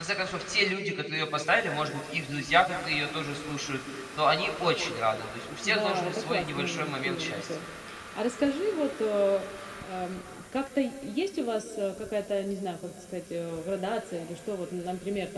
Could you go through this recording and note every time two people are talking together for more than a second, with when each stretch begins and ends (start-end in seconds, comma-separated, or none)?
5.6-7.5